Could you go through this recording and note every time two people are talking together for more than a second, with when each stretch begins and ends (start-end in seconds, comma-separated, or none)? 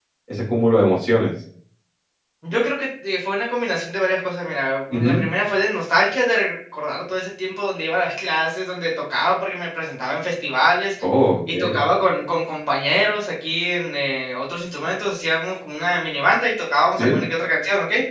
none